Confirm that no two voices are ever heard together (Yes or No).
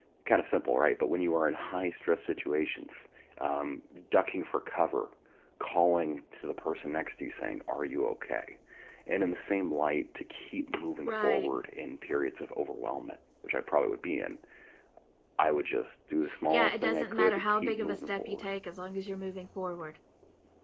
No